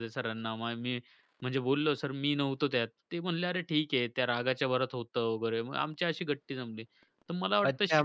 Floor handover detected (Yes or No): Yes